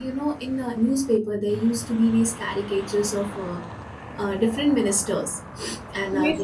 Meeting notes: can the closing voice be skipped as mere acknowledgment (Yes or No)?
Yes